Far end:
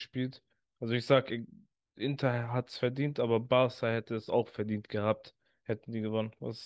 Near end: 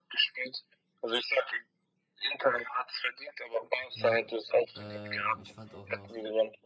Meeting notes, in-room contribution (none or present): present